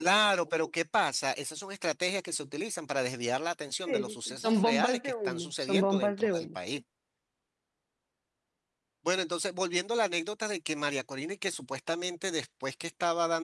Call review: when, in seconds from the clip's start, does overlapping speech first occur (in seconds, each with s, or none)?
3.9 s